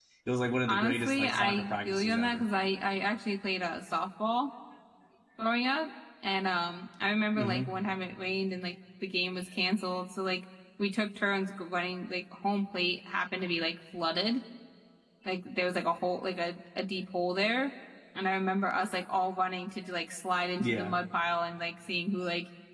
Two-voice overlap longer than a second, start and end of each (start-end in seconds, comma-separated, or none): 0.7-2.4